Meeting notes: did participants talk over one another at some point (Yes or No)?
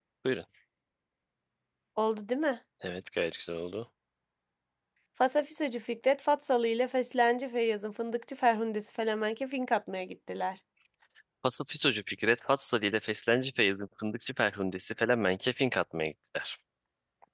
No